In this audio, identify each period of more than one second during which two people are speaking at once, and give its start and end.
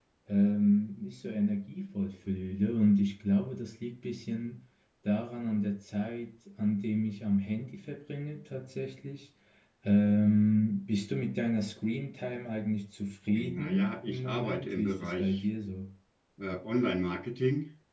13.4-15.4

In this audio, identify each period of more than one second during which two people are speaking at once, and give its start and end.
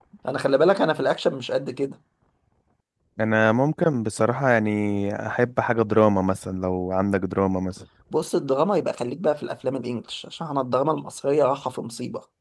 none

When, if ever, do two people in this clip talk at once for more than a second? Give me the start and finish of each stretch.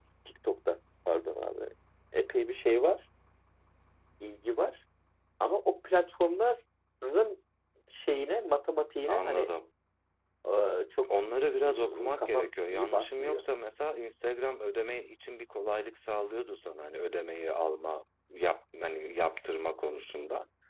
11.7-13.4

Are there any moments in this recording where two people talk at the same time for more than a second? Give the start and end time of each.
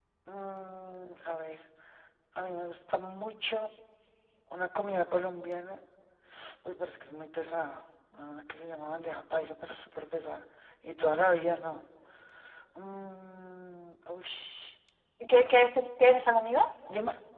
none

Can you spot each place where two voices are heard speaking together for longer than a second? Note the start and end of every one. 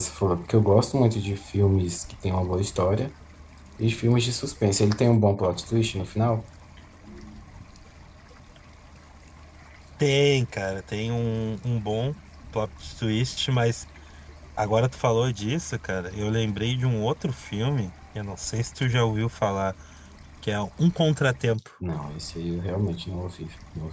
none

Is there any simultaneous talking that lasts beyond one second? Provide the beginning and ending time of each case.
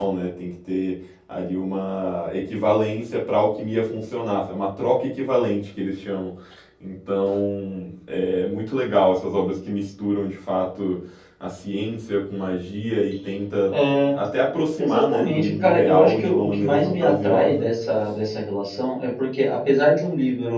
14.8-17.7

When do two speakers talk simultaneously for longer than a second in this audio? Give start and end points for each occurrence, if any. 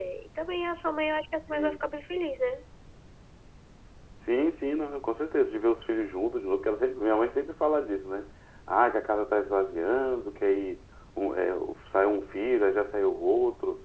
none

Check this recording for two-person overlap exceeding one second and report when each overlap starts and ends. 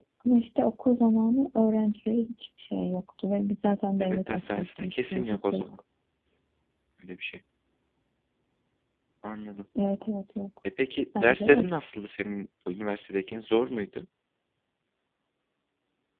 4.0-5.7

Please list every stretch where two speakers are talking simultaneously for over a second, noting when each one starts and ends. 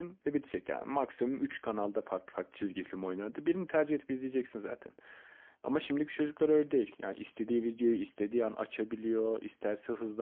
none

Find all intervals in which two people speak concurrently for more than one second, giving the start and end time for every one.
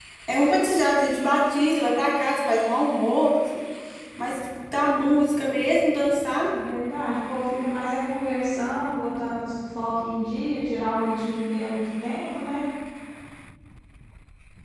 none

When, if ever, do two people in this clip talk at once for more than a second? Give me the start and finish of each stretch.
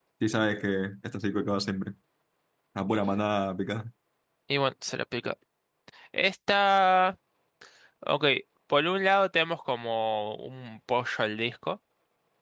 none

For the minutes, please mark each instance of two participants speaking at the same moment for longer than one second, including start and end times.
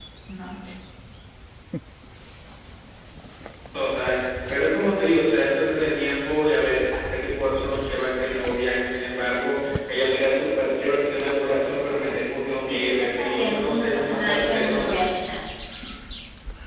12.6-15.0

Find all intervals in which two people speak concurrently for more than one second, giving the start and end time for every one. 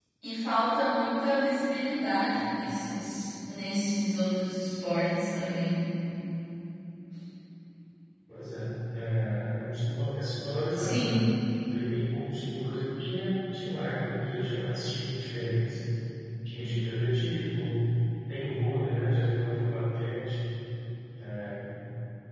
none

